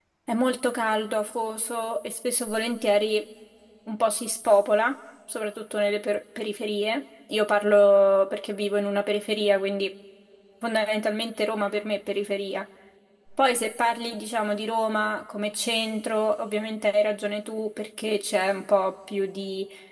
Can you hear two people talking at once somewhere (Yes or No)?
No